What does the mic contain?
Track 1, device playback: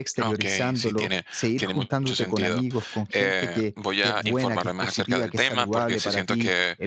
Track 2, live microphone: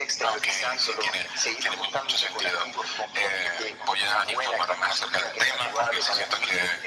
echo only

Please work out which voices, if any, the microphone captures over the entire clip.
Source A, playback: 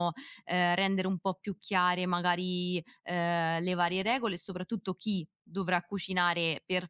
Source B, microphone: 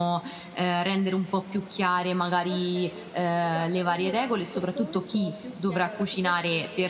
both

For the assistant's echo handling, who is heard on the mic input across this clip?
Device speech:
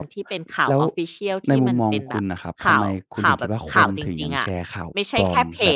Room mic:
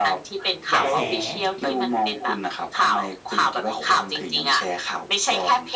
both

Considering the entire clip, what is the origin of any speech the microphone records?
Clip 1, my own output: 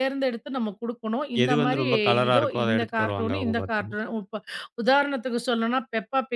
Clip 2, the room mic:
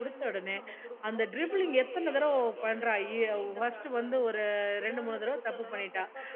both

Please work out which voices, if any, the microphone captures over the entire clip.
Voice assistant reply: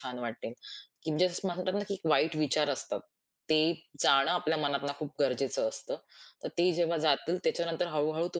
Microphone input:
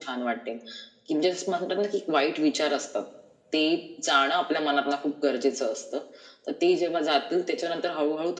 echo only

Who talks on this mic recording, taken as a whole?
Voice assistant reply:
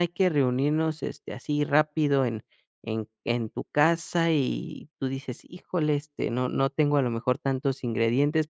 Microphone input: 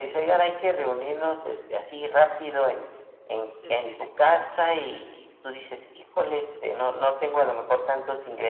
both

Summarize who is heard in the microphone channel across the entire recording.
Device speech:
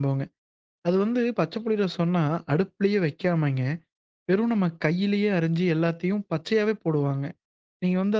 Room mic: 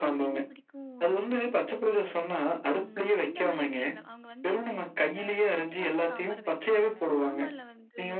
both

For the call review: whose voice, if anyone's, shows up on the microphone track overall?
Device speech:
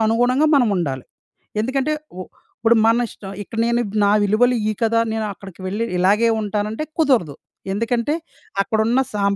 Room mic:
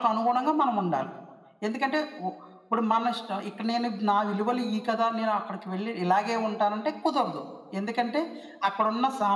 echo only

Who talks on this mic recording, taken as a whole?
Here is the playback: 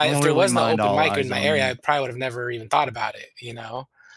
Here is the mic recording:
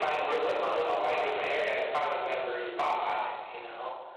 echo only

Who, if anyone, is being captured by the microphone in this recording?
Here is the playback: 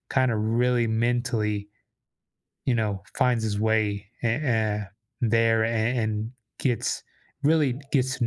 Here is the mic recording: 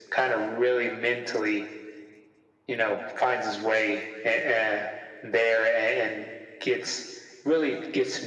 echo only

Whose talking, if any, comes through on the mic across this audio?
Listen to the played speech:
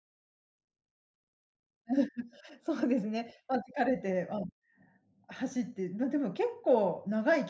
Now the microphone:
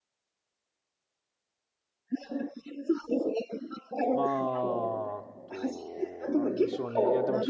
both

